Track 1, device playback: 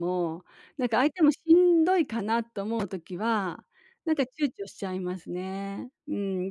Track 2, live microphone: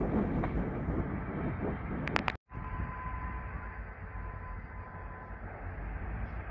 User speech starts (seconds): none

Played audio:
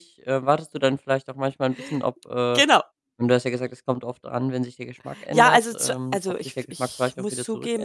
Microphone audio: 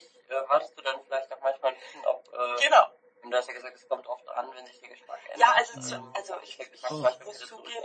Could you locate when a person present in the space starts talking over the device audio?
5.7 s

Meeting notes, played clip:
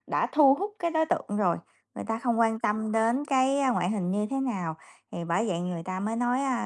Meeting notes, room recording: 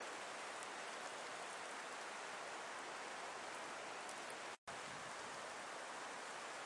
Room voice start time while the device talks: none

